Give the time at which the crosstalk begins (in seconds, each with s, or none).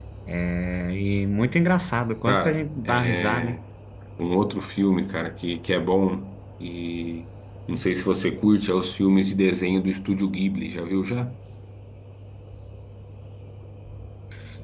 2.3 s